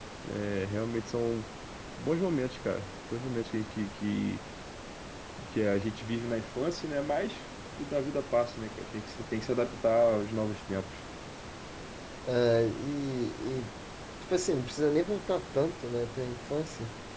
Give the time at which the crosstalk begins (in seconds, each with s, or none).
none